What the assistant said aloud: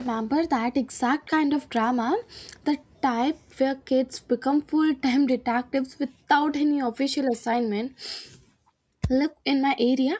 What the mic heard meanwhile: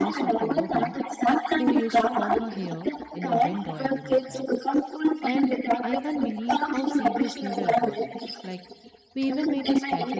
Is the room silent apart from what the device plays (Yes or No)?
No